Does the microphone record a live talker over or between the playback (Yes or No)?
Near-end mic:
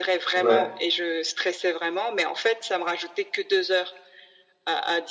Yes